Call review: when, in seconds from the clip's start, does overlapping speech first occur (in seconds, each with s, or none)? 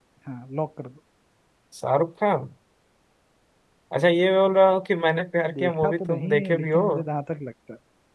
5.5 s